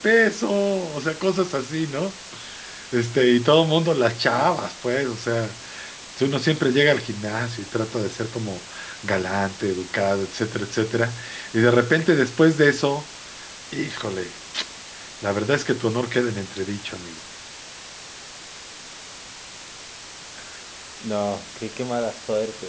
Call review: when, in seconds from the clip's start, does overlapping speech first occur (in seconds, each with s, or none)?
none